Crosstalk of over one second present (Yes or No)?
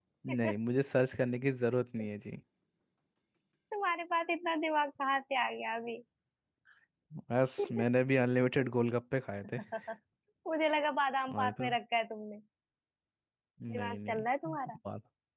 No